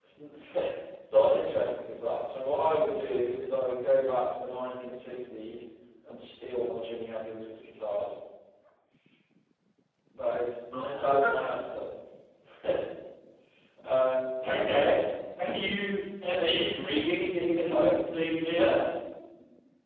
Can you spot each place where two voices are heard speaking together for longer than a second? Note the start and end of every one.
none

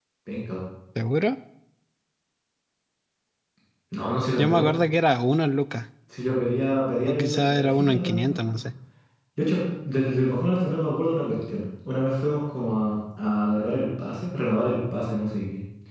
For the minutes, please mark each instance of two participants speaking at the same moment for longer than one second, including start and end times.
7.1-8.4

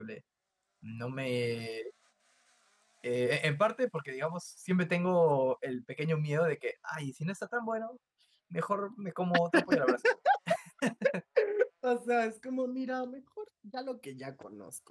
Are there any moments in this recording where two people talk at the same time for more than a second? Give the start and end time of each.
none

